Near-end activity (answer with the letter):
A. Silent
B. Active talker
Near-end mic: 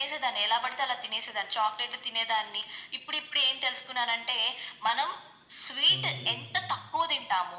B